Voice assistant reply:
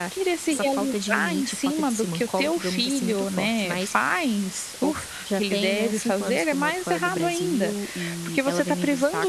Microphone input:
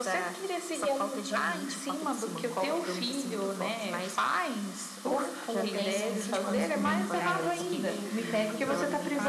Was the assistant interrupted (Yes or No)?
Yes